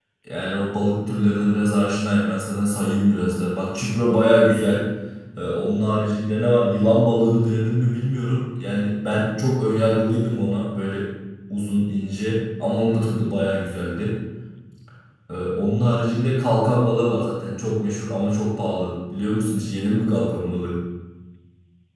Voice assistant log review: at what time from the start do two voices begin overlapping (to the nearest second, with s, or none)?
none